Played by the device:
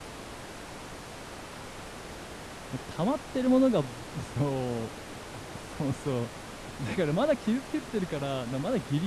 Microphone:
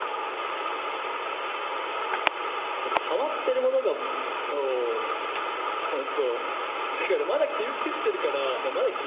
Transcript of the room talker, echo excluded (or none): none